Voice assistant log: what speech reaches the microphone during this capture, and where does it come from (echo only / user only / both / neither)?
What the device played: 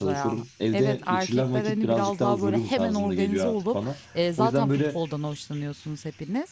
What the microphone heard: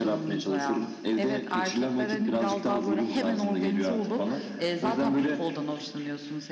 echo only